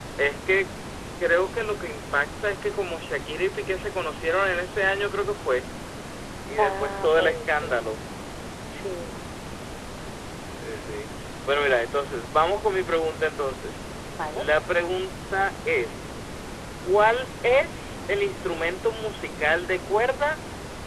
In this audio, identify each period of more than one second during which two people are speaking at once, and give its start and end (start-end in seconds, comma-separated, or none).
6.6-7.8